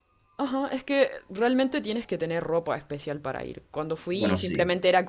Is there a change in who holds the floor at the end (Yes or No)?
No